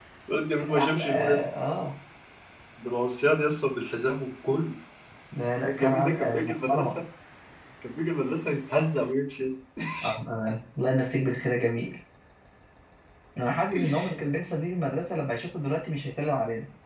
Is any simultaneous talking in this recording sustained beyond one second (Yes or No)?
Yes